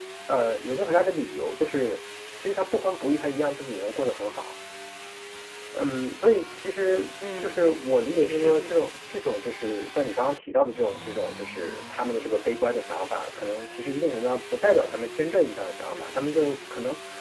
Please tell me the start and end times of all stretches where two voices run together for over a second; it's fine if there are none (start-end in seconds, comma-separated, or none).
7.4-8.8